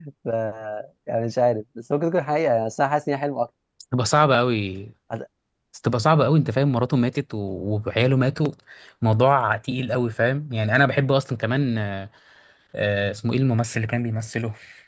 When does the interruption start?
none

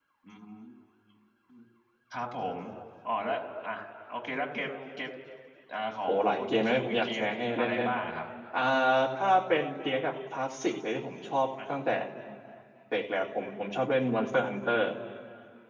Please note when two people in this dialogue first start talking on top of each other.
6 s

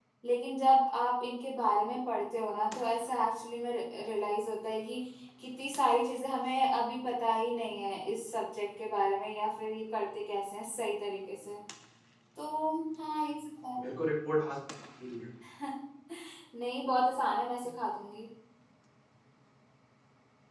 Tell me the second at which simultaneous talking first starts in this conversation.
none

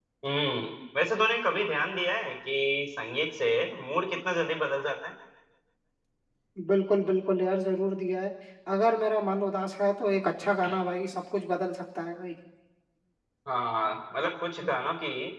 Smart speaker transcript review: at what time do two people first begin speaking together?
none

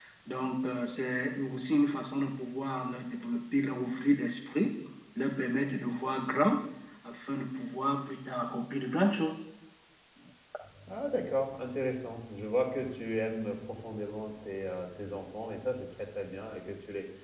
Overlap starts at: none

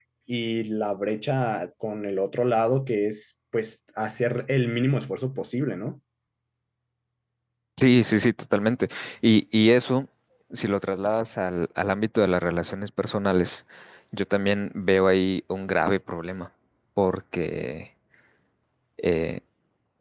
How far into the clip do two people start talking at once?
none

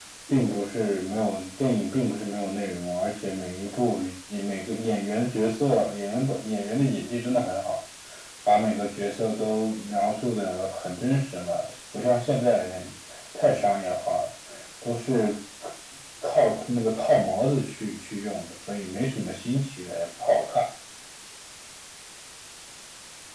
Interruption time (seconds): none

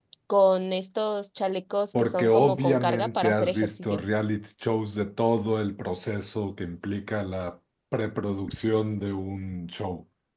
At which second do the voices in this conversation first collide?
2 s

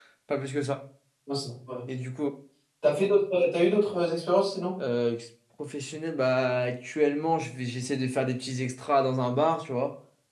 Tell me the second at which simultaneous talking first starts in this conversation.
none

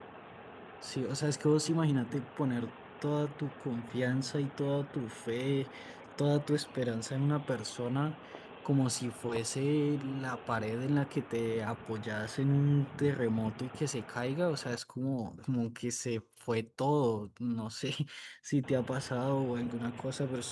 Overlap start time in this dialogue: none

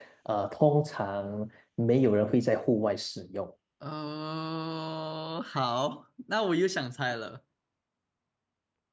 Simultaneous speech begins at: none

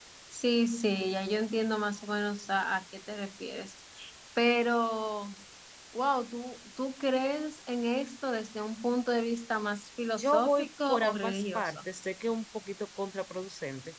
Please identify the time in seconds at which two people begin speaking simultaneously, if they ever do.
10 s

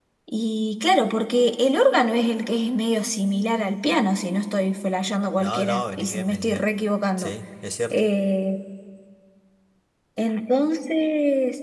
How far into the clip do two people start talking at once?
5 s

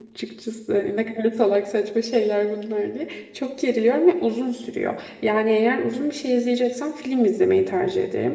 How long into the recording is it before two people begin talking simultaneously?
none

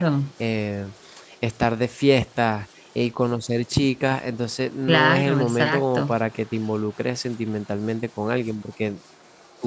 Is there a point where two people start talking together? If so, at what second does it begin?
5 s

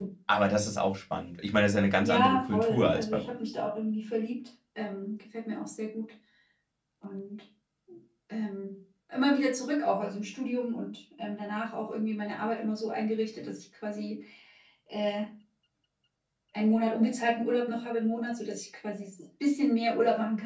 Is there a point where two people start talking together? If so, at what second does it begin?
2 s

